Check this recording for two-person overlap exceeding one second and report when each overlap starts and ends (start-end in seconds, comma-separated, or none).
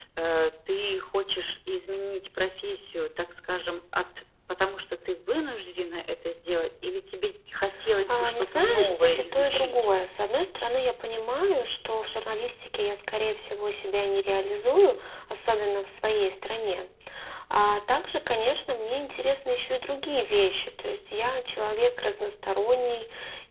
8.1-9.8